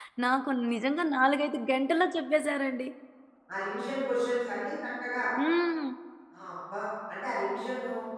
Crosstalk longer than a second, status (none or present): none